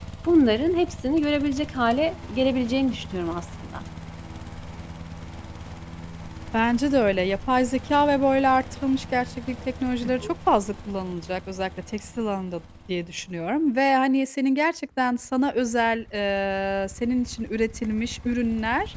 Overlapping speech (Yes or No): No